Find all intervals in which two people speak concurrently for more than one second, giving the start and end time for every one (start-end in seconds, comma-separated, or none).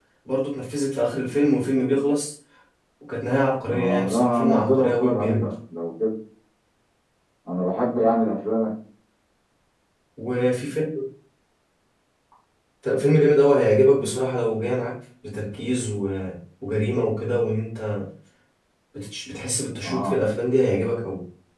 3.7-5.5